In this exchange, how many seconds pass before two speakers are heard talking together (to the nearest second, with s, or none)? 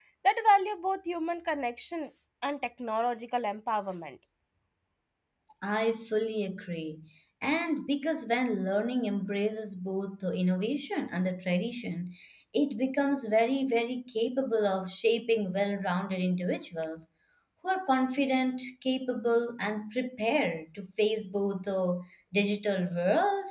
none